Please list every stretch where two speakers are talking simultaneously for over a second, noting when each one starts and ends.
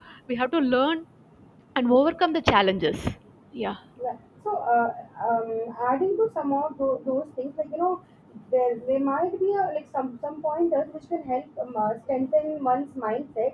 none

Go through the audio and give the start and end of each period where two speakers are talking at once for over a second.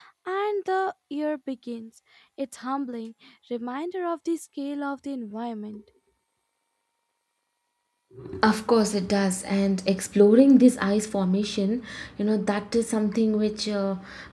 none

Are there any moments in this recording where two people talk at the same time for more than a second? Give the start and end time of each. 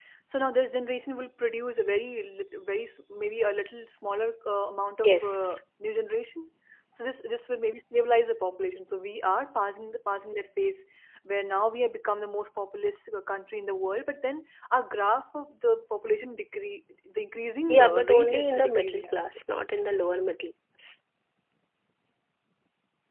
17.7-19.2

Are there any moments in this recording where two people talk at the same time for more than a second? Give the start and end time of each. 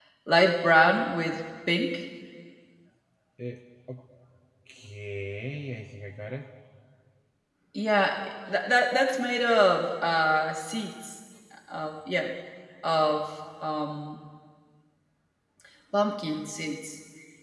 none

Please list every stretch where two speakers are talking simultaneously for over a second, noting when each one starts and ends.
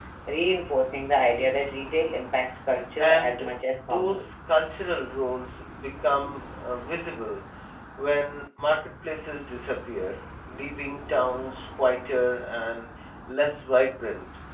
3.0-4.3

